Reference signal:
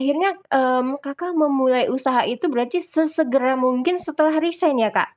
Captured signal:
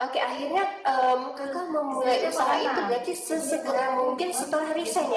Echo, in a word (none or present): present